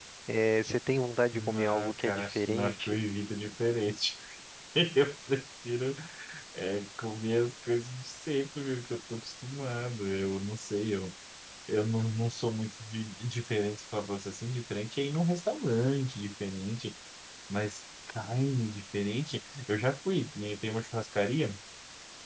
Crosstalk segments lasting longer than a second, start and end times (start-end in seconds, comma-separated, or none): 1.3-3.0